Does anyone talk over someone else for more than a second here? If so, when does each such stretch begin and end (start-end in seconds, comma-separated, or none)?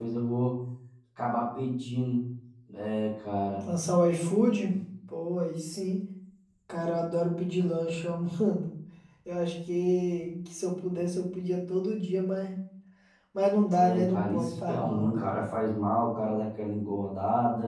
13.8-15.2